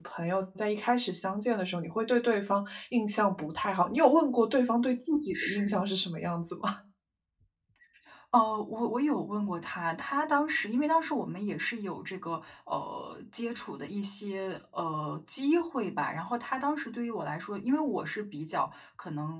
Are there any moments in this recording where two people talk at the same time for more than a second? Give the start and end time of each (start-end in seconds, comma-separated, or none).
none